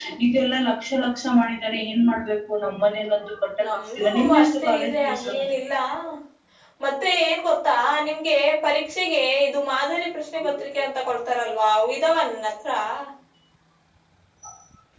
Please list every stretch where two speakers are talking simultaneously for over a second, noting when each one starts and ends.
3.6-5.3

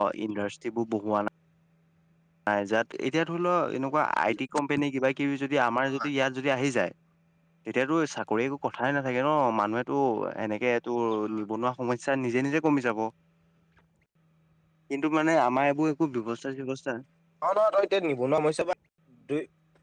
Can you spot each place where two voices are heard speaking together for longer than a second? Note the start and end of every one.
none

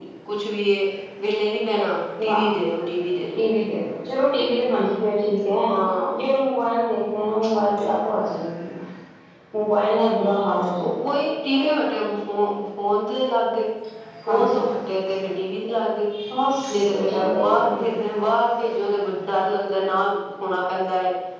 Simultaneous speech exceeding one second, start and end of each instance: 16.7-17.9

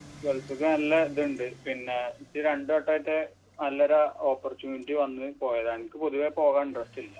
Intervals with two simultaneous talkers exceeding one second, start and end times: none

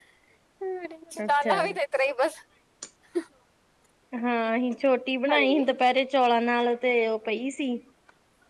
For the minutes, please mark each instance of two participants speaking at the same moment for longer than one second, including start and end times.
none

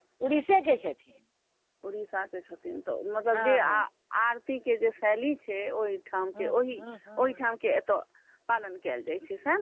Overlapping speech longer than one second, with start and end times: none

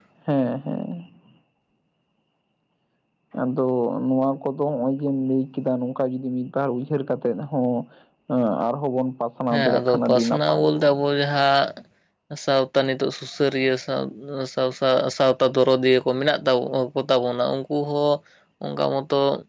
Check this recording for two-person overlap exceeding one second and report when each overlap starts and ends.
9.5-10.9

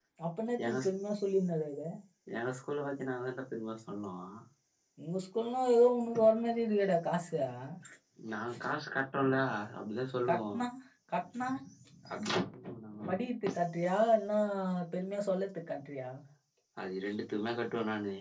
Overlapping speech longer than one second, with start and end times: none

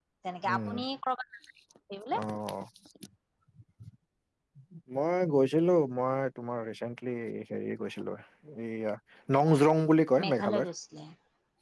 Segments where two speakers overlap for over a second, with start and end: none

